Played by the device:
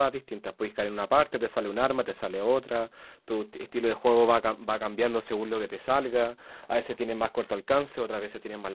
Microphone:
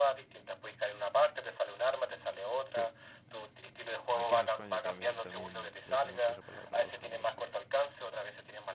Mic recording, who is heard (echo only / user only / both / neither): both